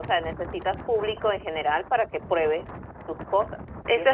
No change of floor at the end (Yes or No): No